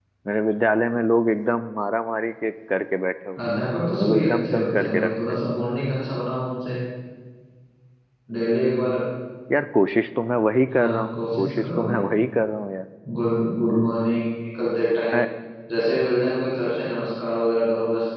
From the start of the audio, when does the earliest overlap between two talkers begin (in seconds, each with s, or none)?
4.0 s